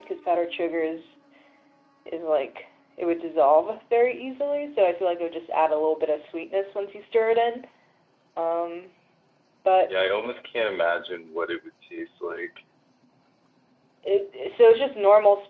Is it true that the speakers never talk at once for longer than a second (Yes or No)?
Yes